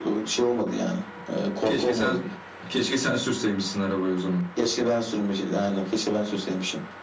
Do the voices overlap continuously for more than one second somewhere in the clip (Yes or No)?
No